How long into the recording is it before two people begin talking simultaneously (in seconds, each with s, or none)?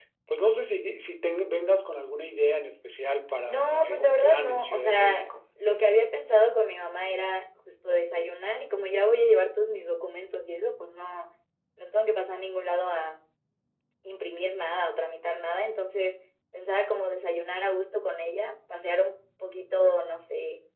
3.5 s